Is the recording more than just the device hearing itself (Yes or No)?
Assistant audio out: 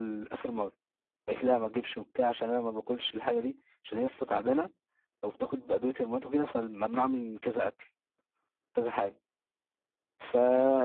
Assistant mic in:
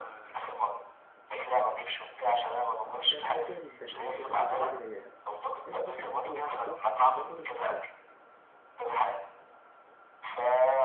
Yes